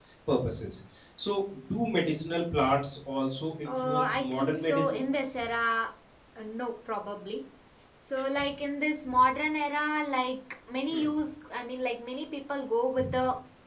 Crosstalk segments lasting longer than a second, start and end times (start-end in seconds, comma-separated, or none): 3.6-5.0